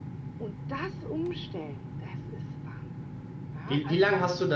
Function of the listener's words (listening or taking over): taking over